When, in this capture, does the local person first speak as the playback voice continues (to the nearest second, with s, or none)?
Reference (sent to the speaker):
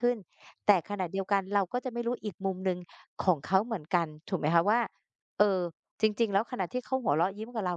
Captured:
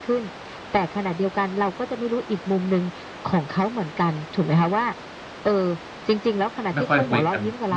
7 s